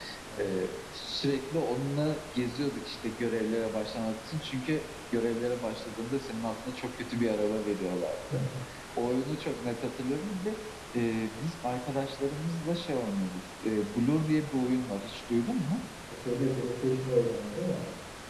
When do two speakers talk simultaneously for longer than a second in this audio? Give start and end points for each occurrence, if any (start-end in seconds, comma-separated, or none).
none